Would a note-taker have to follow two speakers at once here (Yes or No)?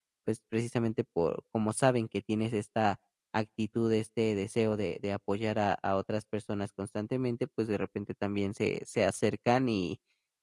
No